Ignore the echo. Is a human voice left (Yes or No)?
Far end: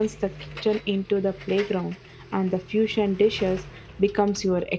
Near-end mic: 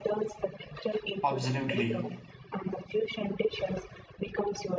Yes